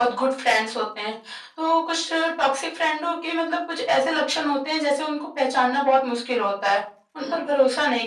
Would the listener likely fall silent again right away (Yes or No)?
Yes